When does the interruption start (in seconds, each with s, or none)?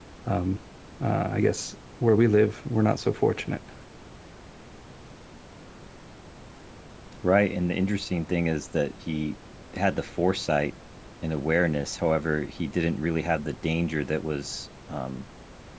none